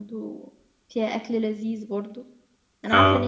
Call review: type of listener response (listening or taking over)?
listening